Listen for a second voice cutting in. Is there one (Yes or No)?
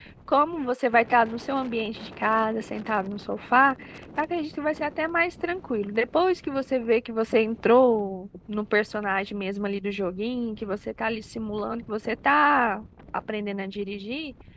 No